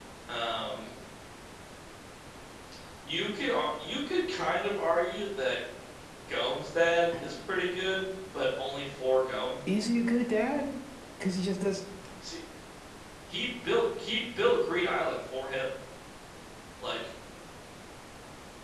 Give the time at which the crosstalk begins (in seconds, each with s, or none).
none